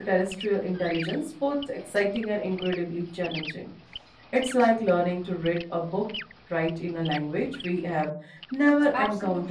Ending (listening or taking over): taking over